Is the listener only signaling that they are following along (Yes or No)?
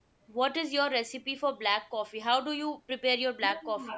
No